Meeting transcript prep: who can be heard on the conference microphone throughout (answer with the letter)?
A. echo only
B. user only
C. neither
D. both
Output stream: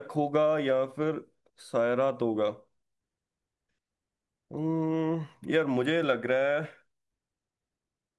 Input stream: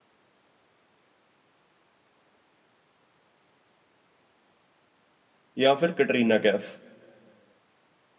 B